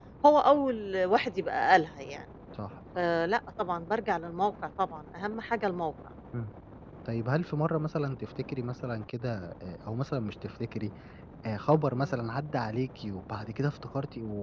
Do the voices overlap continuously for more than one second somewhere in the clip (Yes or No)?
No